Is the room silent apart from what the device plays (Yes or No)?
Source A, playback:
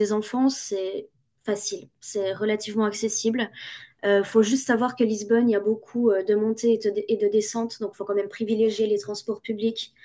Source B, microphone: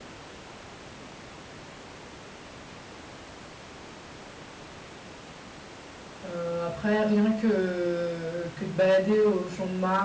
No